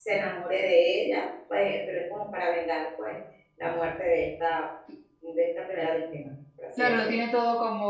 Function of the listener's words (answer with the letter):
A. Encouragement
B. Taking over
B